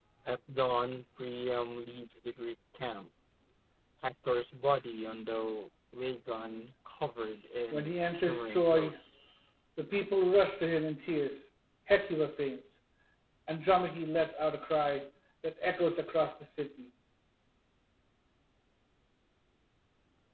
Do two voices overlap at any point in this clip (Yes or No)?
Yes